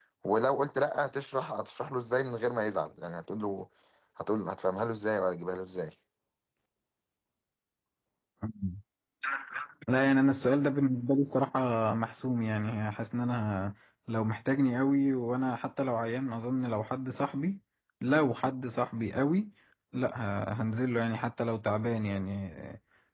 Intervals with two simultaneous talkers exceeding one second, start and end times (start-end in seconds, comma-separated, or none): none